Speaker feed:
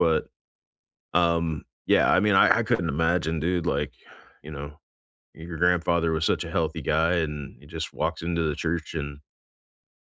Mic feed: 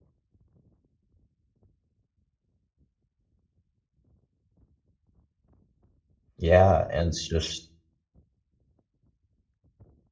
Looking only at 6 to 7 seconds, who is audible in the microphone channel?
user only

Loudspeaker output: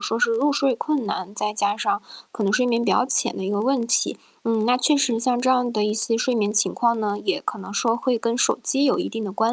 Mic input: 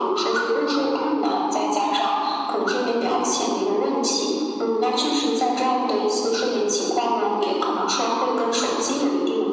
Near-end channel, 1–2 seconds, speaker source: echo only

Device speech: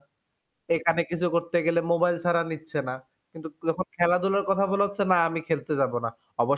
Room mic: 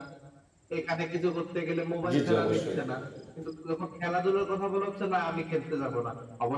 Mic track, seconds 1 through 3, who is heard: both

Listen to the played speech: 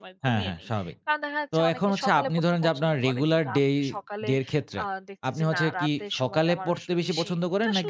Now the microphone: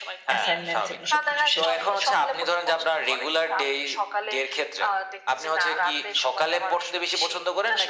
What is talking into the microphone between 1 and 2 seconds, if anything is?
both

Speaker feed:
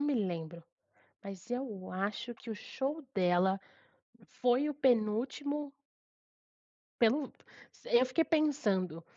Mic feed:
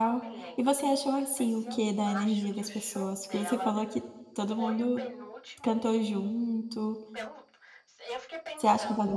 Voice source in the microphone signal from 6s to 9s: both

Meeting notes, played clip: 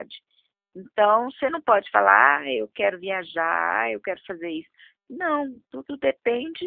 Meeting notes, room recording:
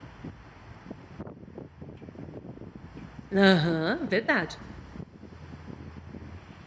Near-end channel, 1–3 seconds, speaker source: neither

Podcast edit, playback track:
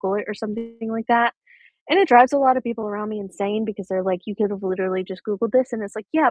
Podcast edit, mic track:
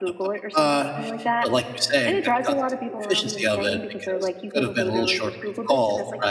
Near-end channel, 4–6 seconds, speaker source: both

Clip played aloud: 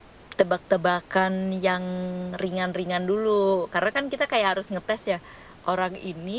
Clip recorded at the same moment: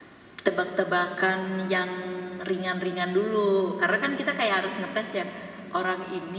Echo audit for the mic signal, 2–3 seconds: echo only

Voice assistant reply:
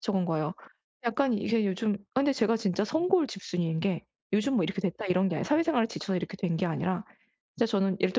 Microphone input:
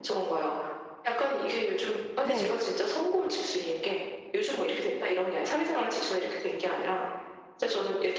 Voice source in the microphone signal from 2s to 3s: both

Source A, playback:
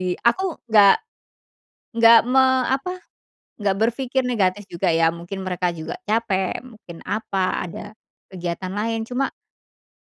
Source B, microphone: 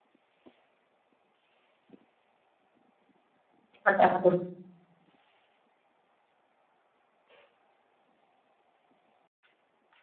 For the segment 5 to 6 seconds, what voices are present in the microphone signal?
neither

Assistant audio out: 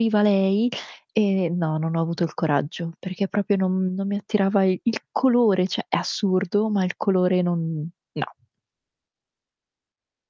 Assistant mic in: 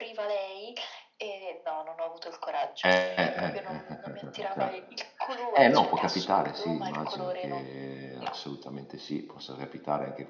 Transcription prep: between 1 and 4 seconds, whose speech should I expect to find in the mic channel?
both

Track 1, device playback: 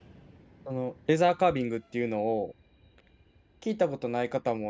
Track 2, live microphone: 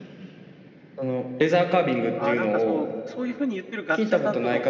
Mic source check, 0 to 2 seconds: echo only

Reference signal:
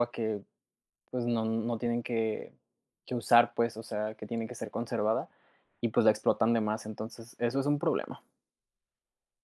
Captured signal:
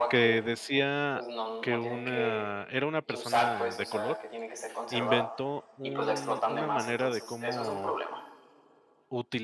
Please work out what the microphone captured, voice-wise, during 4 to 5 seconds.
both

